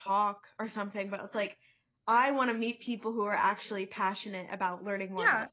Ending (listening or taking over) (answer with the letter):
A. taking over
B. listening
A